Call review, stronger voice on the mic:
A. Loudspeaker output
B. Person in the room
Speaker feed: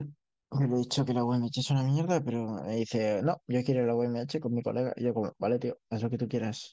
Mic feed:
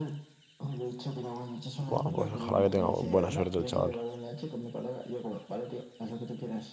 B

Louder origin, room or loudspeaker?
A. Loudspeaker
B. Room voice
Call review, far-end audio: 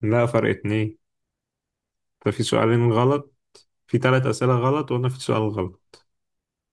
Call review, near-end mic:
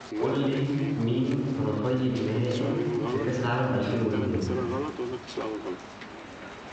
B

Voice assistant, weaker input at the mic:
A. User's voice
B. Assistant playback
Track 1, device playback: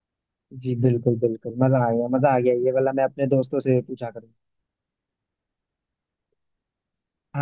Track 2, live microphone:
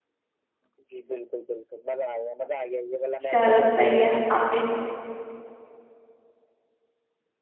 B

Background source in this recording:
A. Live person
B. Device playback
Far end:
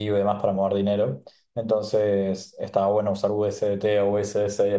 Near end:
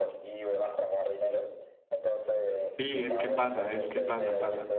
B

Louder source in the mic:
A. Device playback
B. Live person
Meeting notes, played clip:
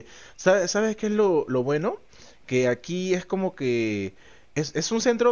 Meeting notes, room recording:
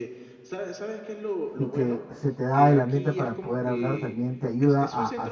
B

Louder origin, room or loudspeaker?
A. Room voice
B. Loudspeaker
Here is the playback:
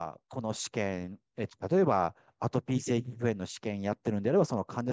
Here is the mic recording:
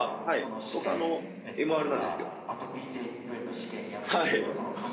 A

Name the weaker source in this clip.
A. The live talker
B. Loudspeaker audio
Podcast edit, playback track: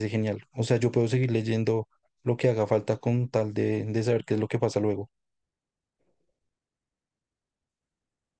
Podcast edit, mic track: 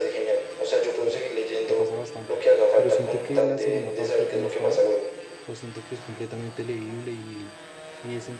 A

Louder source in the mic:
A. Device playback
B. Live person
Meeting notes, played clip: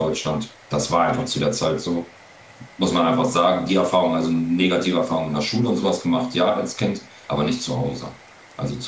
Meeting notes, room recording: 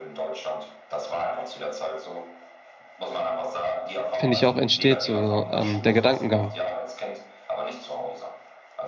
B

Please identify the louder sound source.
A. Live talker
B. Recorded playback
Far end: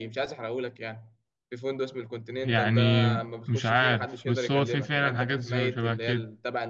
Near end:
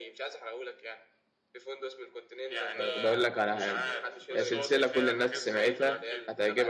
A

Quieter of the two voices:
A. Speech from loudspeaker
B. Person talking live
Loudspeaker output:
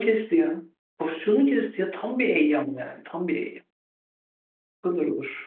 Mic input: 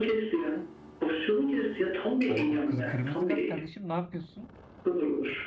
B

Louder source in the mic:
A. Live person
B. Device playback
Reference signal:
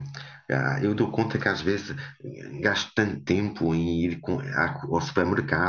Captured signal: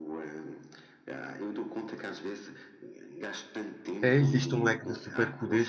A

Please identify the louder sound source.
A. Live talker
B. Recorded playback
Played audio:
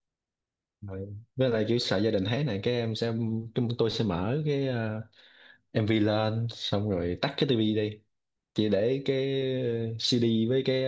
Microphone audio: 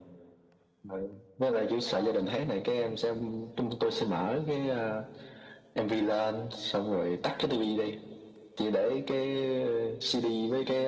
B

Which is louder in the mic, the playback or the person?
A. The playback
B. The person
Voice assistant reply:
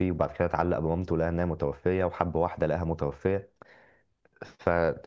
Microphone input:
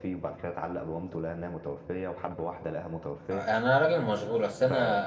B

